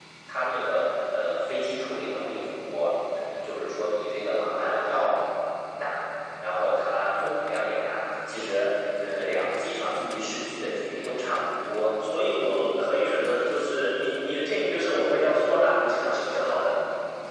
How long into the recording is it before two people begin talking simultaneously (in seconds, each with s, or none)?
none